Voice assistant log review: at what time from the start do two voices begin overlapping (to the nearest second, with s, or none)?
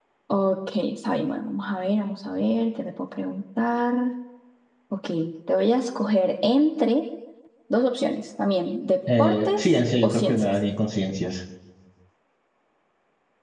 9 s